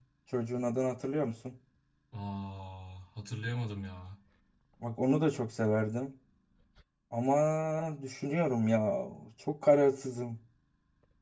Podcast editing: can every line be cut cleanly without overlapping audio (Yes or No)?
Yes